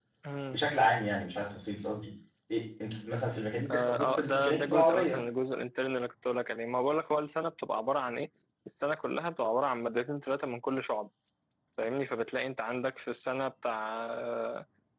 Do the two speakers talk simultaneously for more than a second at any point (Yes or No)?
Yes